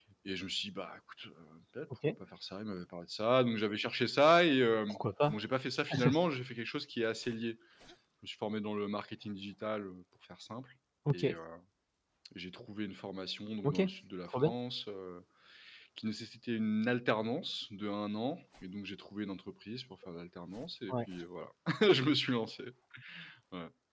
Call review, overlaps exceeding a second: none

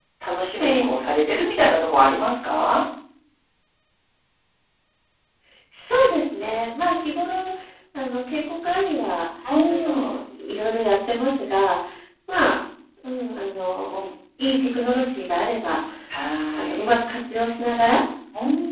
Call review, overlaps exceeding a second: none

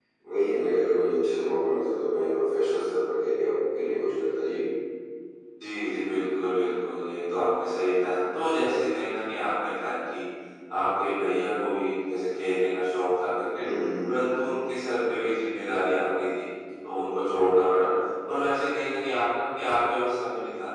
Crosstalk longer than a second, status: none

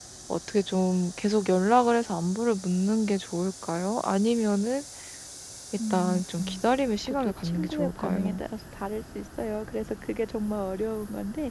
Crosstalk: present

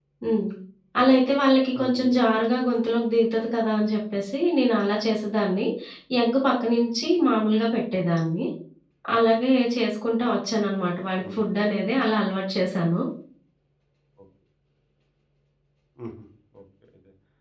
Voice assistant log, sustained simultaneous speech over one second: none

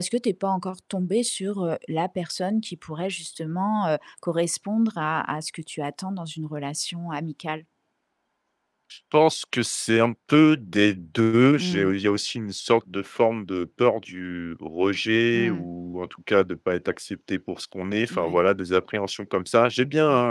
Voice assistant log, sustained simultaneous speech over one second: none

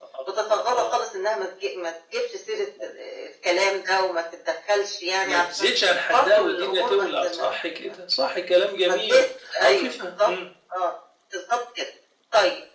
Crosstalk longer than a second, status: present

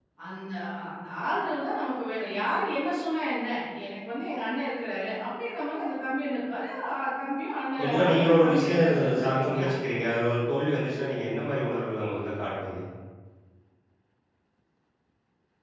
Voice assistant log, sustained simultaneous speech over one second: present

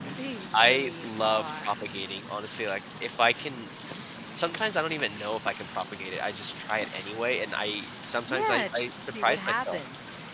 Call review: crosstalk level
present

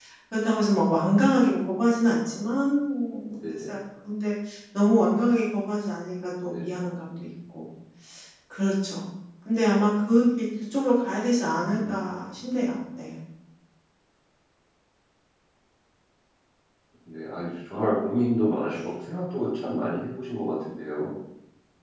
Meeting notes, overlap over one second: none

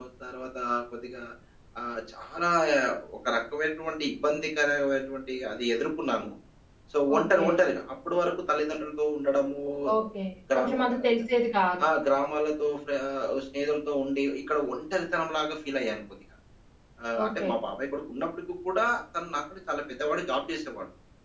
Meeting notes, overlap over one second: none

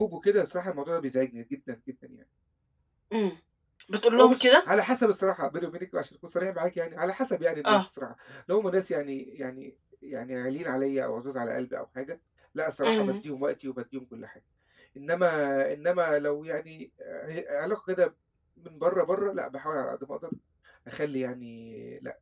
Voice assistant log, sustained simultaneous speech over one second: none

